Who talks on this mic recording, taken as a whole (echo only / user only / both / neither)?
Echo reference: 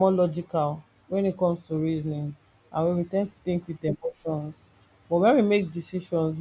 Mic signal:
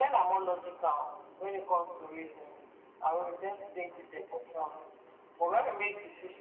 echo only